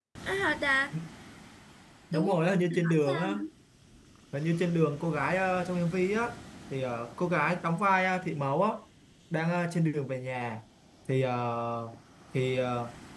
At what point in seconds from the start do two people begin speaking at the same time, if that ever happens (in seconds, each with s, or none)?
2.1 s